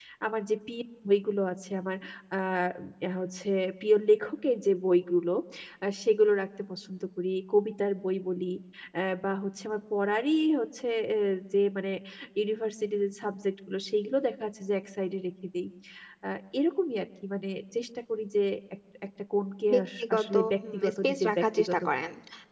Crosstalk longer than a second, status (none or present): present